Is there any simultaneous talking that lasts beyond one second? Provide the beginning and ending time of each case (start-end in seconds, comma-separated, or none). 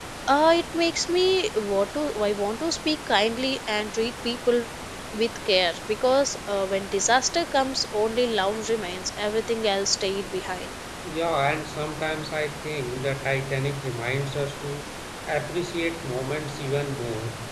none